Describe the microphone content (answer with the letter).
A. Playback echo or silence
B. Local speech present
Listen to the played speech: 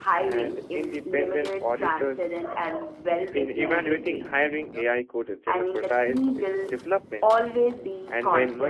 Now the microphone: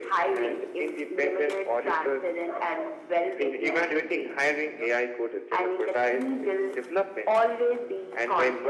A